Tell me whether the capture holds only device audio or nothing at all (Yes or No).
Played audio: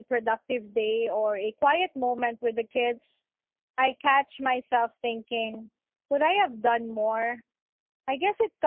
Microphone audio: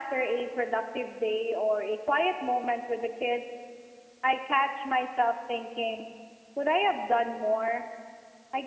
Yes